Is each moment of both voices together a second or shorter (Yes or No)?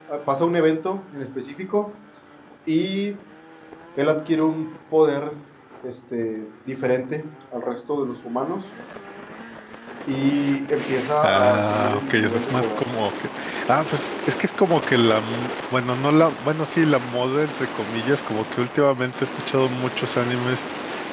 No